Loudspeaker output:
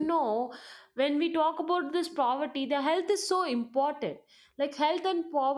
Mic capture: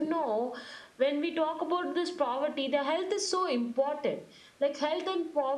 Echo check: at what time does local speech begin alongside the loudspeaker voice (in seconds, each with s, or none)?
none